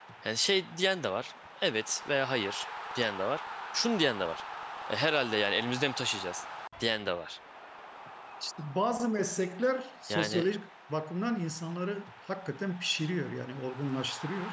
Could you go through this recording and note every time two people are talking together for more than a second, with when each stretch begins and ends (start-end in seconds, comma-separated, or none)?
none